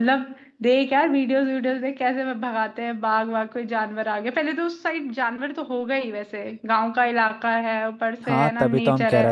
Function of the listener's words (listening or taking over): taking over